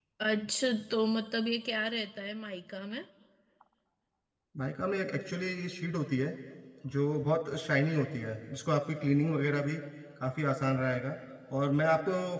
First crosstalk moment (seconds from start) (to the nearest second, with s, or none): none